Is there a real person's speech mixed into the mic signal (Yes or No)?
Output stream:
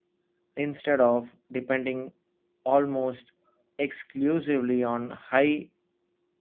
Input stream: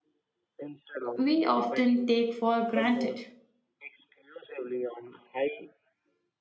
Yes